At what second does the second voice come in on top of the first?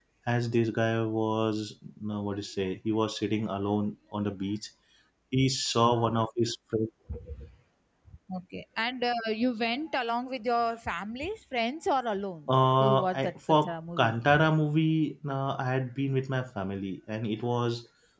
12.5 s

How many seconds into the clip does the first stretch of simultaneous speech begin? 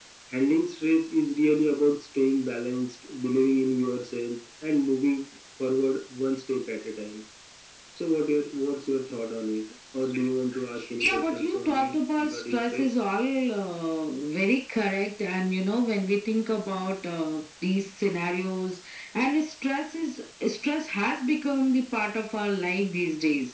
11.0 s

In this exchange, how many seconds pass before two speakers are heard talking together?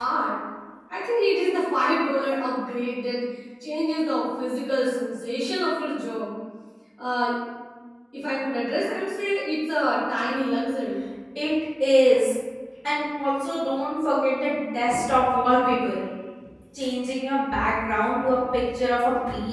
none

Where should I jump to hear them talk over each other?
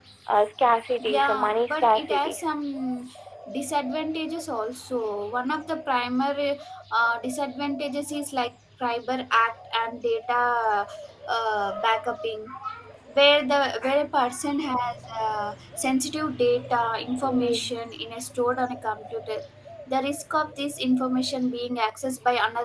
1.0 s

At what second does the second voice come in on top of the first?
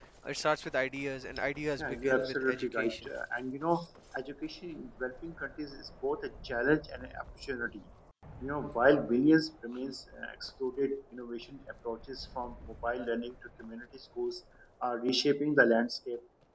1.8 s

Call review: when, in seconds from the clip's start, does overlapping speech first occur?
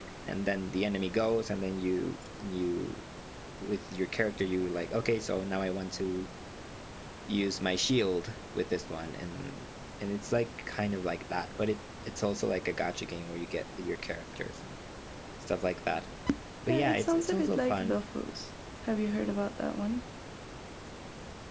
16.7 s

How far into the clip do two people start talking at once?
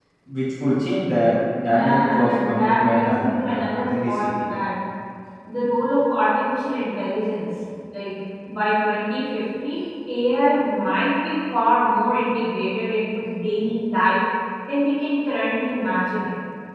1.5 s

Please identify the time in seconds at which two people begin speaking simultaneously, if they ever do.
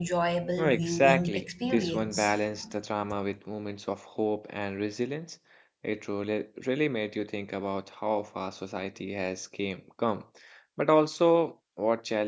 0.6 s

